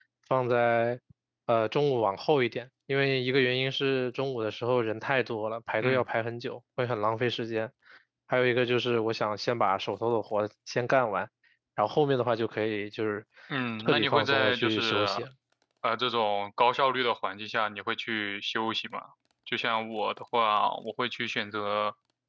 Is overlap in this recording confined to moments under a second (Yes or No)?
No